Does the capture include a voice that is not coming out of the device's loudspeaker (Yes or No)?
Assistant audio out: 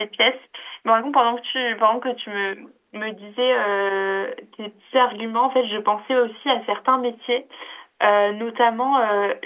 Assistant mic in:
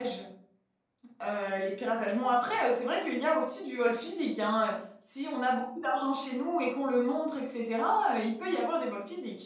Yes